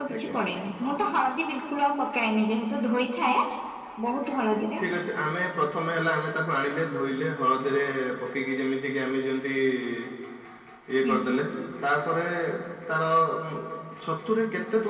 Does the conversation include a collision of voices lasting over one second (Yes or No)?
No